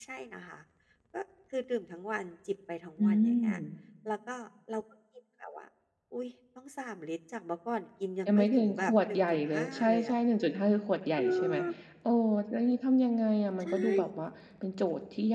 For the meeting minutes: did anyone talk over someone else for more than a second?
Yes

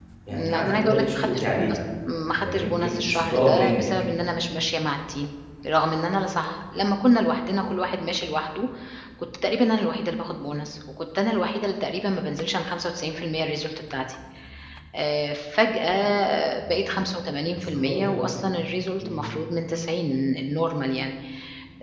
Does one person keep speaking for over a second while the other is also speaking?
Yes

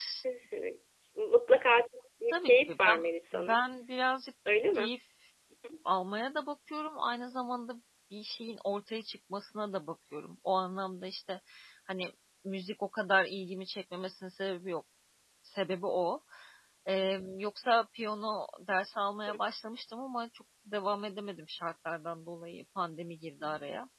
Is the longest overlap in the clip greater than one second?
Yes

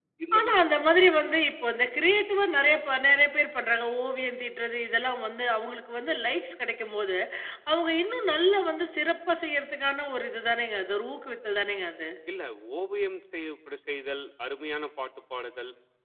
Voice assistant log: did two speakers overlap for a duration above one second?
No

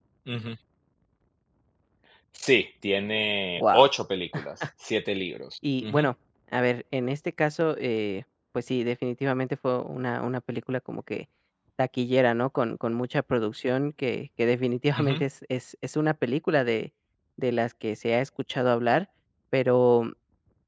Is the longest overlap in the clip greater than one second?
No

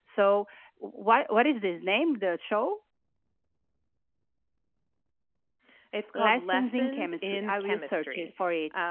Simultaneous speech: Yes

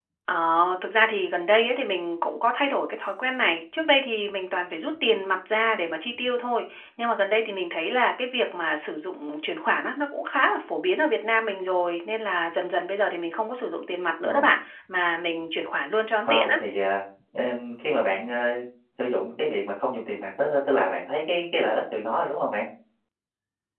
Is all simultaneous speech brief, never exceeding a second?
Yes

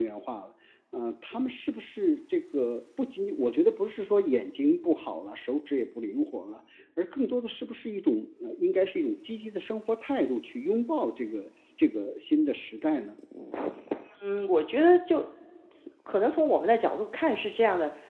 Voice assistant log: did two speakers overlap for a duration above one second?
No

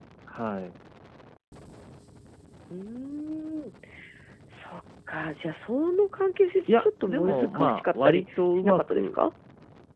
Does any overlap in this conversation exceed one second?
Yes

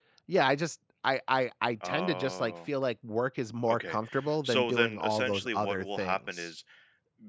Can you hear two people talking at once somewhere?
Yes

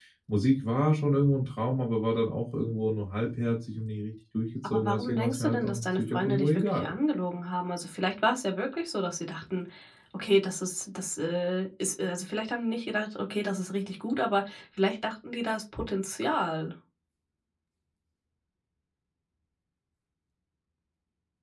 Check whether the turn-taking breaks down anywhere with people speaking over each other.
Yes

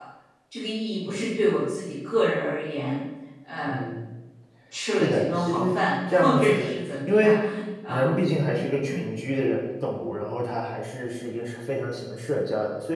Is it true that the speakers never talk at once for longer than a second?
No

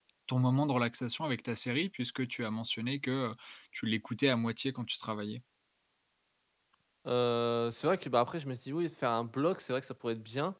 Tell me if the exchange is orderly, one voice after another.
Yes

